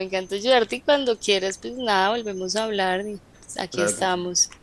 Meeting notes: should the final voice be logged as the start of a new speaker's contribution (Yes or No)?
Yes